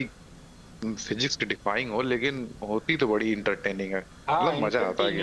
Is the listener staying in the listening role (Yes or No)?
No